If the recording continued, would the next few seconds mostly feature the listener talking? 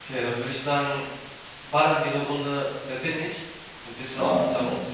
Yes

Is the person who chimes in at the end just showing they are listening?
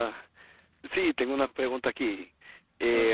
Yes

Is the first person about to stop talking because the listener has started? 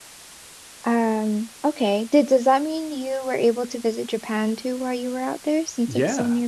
Yes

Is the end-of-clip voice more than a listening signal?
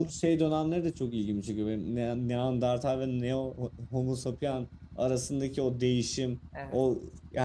No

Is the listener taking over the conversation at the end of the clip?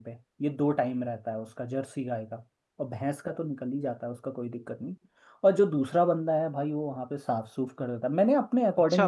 Yes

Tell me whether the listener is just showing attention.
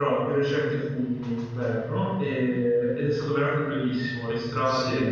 Yes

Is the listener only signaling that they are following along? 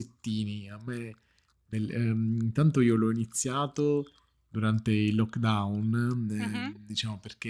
Yes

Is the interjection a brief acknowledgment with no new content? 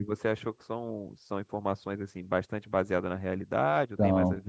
No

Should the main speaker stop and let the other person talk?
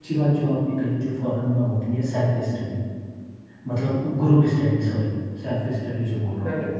Yes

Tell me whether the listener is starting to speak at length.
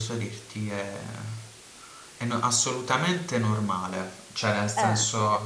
No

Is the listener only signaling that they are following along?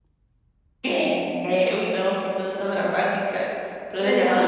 No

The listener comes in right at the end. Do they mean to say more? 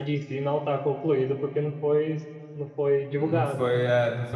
Yes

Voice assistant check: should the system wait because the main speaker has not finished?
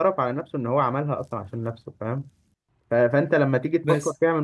Yes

